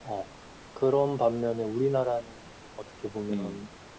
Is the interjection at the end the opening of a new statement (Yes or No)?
No